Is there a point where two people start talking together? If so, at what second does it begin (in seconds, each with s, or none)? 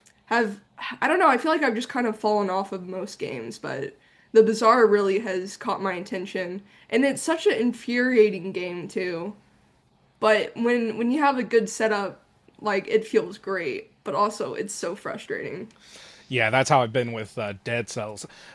none